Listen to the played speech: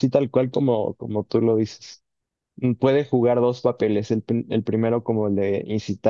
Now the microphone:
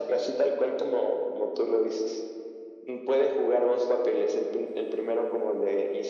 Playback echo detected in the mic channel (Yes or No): Yes